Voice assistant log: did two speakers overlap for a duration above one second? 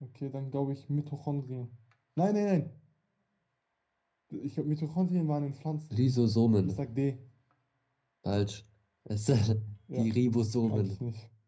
No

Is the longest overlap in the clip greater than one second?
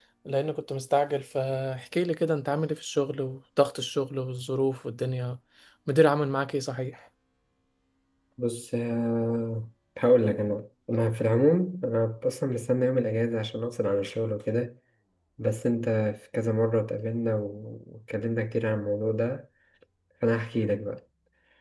No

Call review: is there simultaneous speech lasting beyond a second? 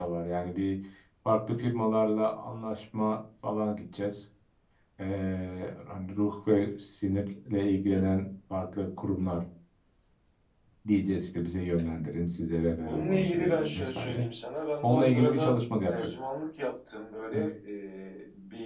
Yes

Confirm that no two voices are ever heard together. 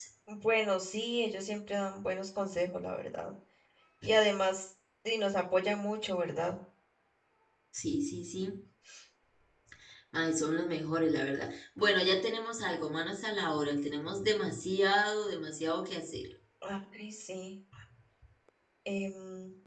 Yes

